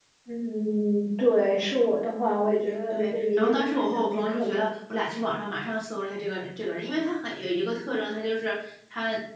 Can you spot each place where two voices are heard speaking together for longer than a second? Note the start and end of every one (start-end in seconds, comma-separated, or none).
2.9-4.7